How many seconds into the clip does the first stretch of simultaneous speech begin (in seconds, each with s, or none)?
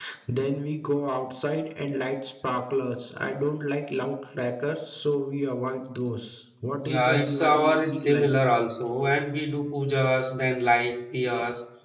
6.8 s